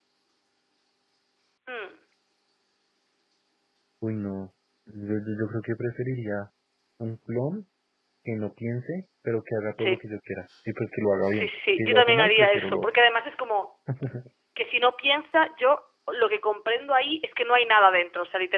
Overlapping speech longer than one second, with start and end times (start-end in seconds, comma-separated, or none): 11.3-13.0